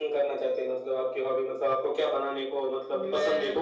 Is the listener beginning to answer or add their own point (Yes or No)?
Yes